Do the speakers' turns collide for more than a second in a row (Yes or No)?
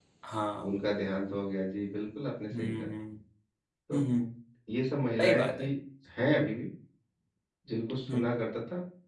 No